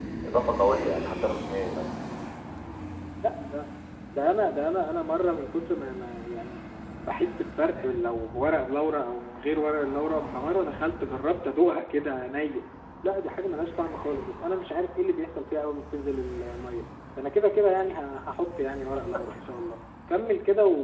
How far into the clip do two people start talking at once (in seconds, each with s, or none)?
none